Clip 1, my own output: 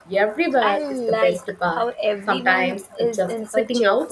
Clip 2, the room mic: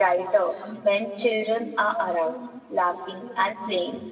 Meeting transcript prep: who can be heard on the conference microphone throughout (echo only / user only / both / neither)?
user only